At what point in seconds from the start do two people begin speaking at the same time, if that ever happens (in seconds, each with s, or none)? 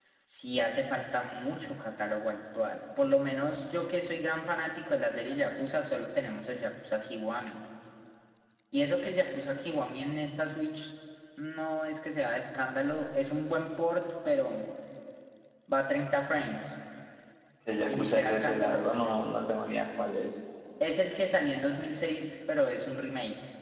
17.9 s